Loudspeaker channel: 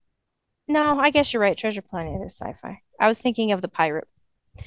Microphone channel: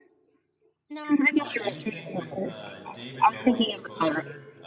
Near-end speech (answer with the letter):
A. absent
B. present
B